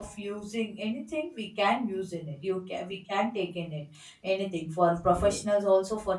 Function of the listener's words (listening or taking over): listening